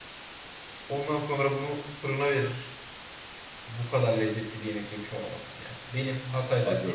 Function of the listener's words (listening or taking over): listening